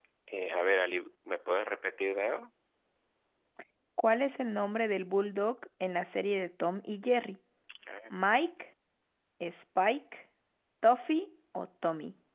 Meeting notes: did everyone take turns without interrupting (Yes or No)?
Yes